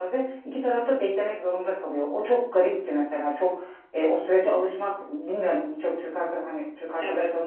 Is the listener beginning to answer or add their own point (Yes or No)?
No